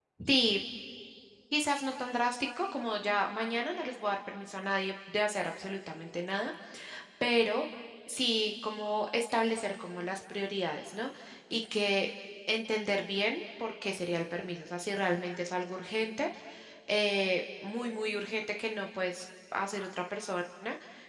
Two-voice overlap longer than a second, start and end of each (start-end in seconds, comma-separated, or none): none